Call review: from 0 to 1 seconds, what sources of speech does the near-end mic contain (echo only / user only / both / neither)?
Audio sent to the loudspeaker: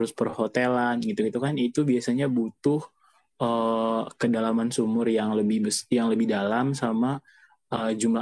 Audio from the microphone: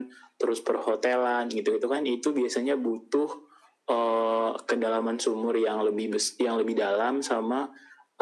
echo only